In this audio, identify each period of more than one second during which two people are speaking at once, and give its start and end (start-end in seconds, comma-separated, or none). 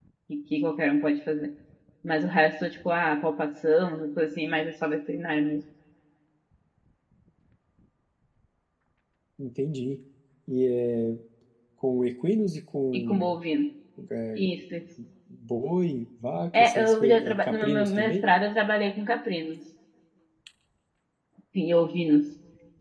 16.5-18.2